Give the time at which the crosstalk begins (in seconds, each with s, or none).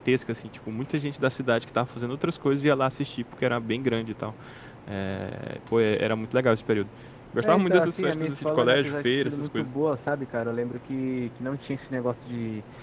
7.4 s